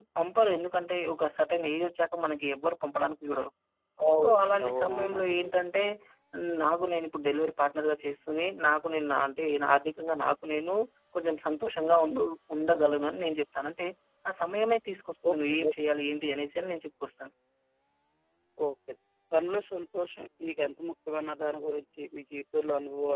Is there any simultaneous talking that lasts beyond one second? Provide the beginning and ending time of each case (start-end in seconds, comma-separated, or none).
4.2-5.5